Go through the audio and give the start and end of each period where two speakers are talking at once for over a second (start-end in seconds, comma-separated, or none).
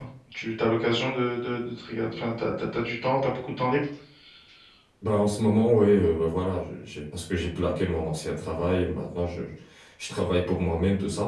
none